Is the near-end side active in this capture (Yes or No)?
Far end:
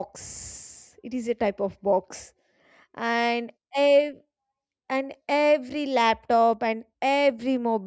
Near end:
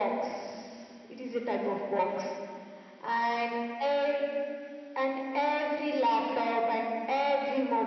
No